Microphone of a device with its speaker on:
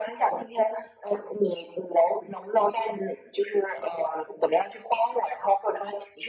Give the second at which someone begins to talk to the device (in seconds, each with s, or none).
none